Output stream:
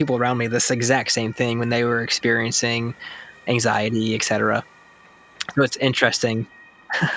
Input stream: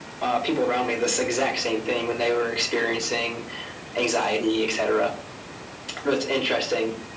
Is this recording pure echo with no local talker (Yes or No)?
Yes